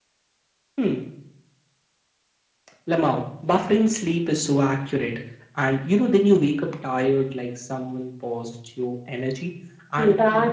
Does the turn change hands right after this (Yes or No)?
No